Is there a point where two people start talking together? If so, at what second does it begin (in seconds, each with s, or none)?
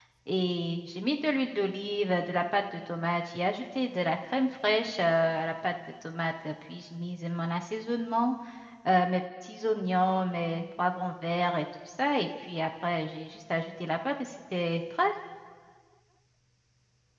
none